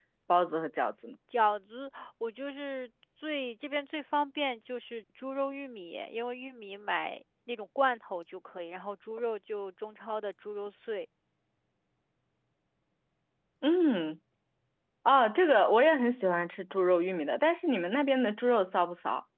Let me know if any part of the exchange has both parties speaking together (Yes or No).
No